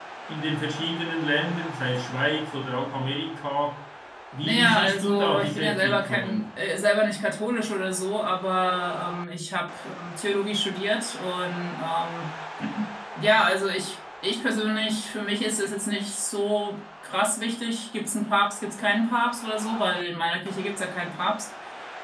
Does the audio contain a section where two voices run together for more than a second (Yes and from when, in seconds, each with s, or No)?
Yes, from 4.4 s